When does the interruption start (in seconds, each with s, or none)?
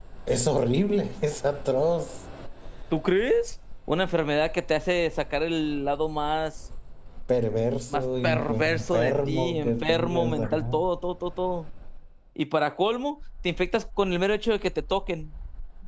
7.9 s